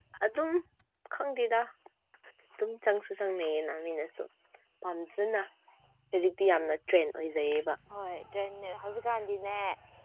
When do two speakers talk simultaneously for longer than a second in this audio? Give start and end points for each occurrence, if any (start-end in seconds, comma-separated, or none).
none